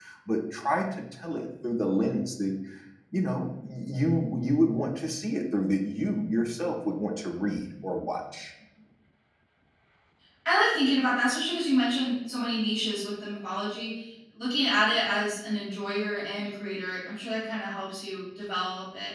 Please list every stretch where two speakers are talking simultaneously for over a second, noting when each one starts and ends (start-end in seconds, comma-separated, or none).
none